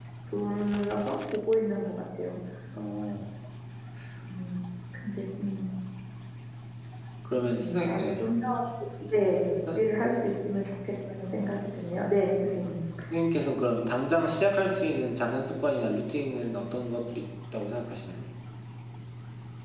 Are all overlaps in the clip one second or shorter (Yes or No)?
Yes